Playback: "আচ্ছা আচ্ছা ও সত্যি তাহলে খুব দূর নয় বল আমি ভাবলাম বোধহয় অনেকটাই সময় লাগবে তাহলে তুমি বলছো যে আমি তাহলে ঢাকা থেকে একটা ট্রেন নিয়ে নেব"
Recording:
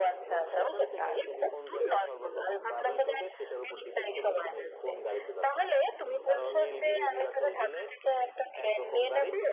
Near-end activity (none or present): present